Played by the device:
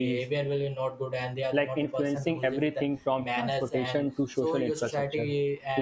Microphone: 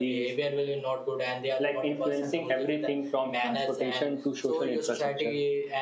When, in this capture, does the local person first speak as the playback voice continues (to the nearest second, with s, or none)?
none